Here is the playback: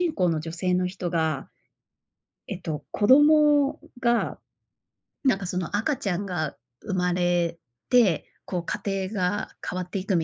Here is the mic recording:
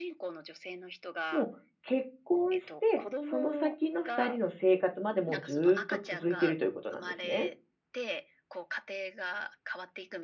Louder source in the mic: user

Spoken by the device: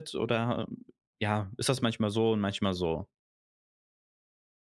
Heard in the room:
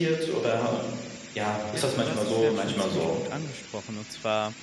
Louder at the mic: echo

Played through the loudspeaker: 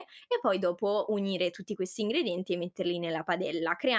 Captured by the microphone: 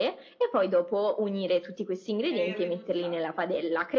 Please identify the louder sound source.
echo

